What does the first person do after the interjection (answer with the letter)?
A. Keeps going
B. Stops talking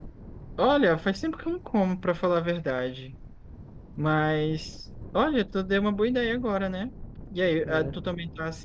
A